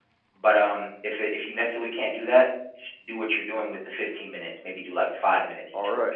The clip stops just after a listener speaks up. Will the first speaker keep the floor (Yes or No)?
No